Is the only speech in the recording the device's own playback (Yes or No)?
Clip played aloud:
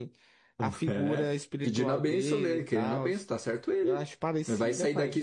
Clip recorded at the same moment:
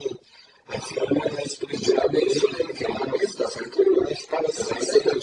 Yes